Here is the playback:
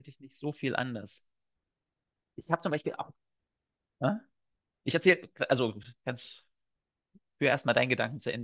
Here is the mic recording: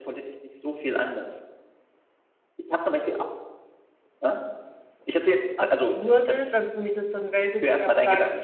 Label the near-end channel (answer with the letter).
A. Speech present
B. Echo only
A